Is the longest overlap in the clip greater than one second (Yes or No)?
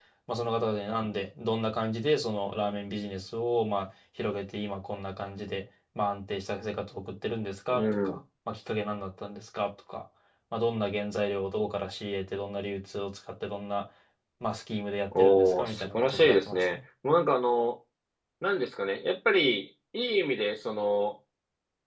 Yes